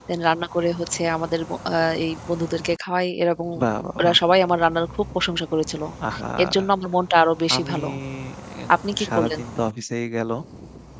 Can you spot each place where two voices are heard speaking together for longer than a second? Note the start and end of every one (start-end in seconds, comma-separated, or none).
none